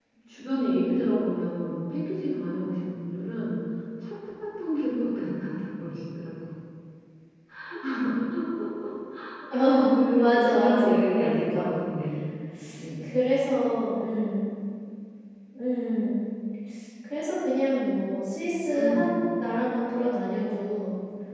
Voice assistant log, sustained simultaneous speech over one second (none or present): present